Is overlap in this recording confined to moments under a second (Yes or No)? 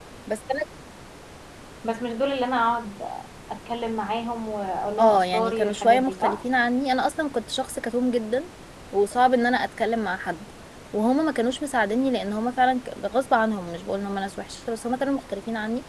No